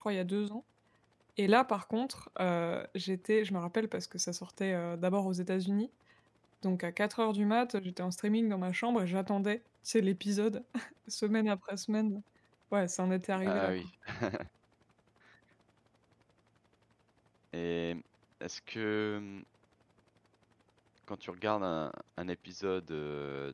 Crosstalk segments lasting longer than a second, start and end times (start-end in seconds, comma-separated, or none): none